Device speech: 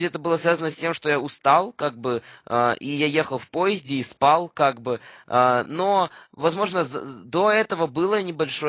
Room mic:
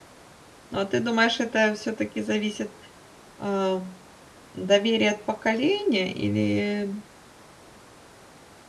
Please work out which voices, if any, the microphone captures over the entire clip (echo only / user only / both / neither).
user only